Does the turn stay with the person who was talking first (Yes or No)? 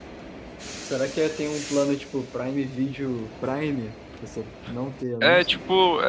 No